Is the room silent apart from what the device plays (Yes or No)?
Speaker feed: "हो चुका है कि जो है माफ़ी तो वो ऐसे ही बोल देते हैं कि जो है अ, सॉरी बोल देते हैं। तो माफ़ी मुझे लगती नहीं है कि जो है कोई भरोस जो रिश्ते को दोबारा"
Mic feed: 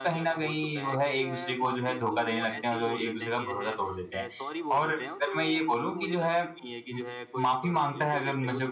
No